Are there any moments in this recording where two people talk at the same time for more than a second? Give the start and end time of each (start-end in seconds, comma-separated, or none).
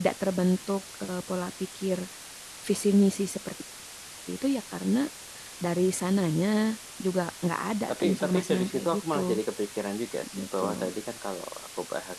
7.9-9.2